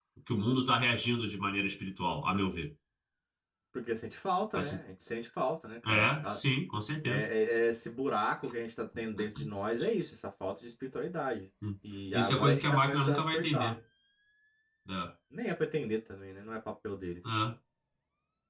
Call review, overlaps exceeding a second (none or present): present